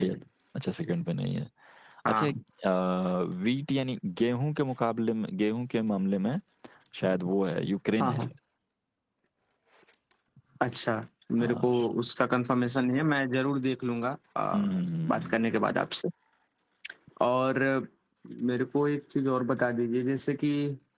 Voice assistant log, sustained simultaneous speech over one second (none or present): none